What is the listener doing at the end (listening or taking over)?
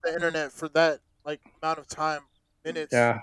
taking over